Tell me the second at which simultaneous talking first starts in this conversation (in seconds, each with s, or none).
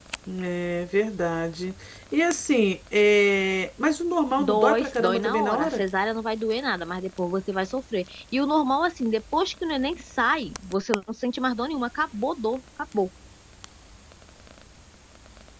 4.4 s